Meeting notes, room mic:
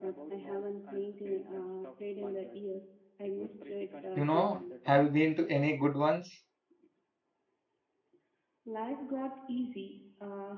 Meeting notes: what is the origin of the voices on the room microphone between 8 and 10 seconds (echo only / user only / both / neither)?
echo only